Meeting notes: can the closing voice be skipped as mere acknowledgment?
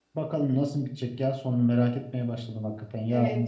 No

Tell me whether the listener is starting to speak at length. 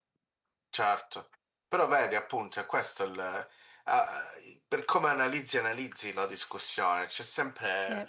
No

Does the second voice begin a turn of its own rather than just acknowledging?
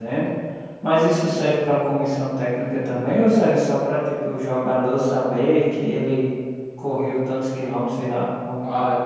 Yes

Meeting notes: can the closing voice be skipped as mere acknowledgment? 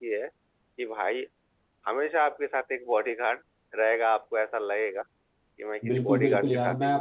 No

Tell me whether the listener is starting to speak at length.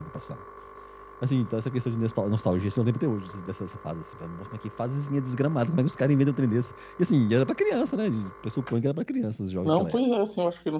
Yes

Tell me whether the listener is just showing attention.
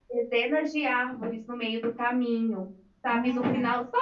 Yes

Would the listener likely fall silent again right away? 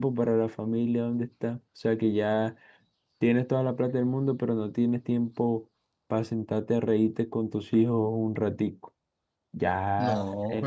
Yes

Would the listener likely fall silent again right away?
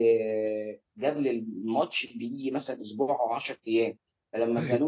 Yes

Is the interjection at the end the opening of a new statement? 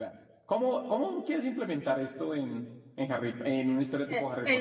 Yes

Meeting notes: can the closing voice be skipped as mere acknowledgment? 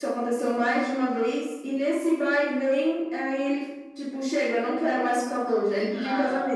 No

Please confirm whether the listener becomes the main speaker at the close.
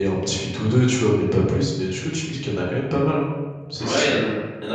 Yes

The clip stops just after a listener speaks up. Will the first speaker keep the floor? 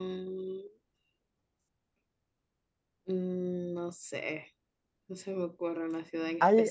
No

